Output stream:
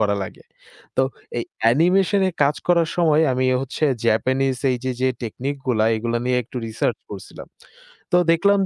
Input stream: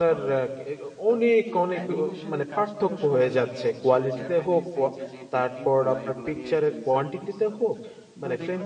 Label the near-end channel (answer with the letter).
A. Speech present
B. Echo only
A